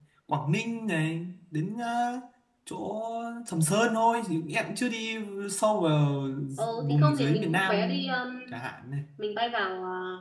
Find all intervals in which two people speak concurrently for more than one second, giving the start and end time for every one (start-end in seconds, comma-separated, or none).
6.8-8.0